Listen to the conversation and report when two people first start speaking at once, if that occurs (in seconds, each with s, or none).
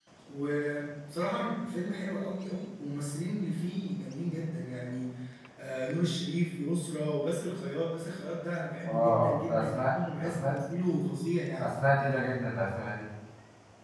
8.8 s